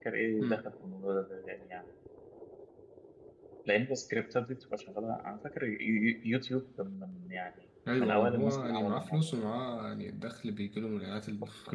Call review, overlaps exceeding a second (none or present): present